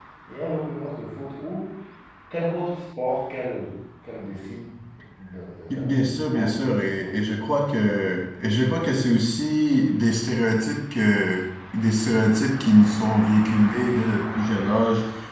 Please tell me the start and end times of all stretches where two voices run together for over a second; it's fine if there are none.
5.8-7.2

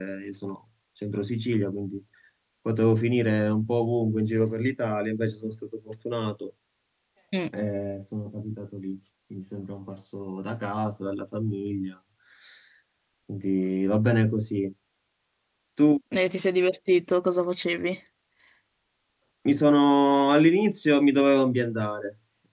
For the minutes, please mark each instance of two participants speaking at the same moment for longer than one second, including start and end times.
none

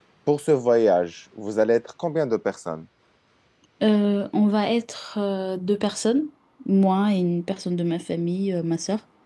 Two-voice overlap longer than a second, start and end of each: none

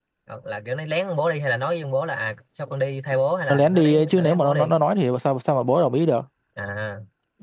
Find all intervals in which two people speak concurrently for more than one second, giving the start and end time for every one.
3.5-4.7

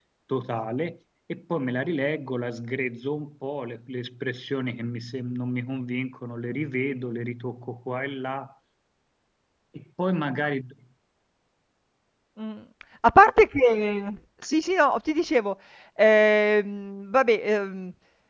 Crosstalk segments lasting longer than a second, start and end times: none

